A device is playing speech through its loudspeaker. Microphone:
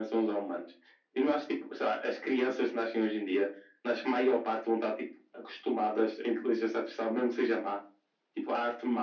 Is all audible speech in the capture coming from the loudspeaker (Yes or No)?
Yes